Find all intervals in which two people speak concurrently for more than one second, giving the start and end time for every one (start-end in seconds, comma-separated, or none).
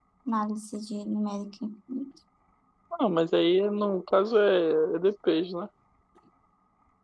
none